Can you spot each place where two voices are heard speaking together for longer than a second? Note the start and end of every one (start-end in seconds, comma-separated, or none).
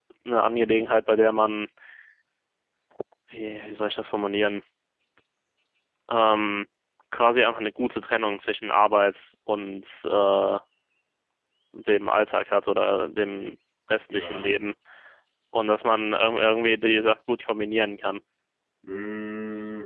none